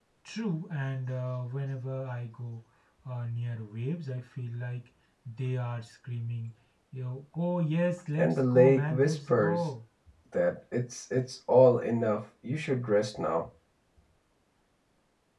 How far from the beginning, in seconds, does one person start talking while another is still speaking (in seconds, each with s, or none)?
8.2 s